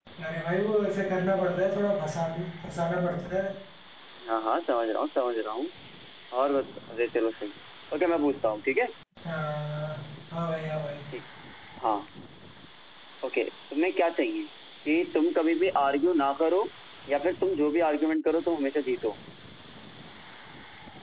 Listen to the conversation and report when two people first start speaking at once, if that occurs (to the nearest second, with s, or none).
none